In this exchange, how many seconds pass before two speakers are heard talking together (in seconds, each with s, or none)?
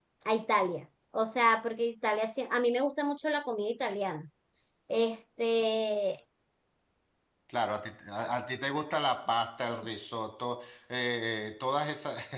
none